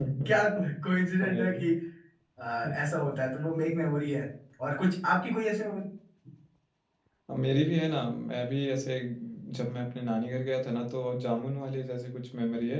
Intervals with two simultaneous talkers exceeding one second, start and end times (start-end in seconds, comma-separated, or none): none